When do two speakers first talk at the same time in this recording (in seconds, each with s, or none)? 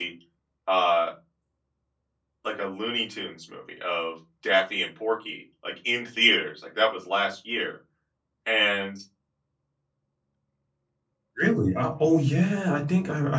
none